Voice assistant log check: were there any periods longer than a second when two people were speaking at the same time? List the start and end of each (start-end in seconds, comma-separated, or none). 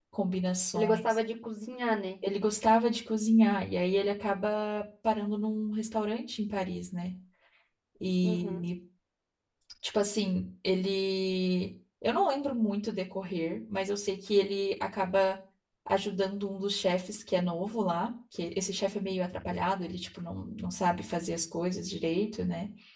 none